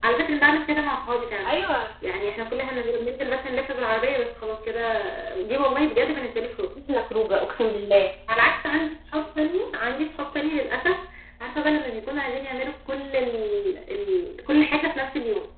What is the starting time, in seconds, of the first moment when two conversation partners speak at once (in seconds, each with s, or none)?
none